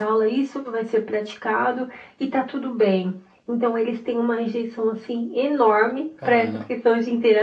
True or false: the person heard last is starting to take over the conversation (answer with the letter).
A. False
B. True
A